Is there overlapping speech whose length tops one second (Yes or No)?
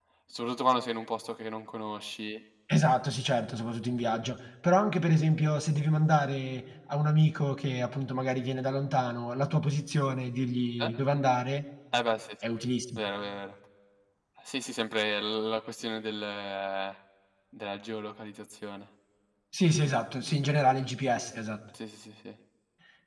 No